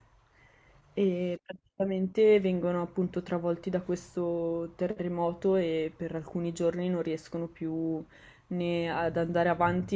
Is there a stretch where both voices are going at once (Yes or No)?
No